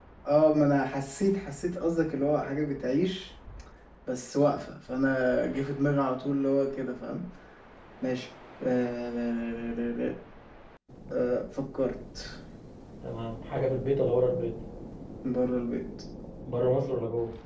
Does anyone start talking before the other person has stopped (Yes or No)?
No